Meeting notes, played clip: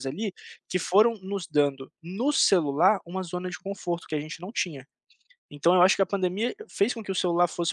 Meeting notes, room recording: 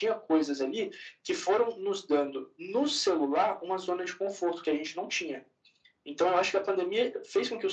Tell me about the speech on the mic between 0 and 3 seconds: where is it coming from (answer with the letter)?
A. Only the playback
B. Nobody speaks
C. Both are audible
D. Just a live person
A